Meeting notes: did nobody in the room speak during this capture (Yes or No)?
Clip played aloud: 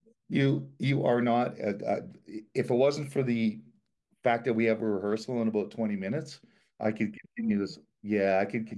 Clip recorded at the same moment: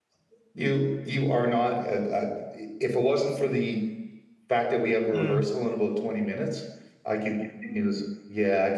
No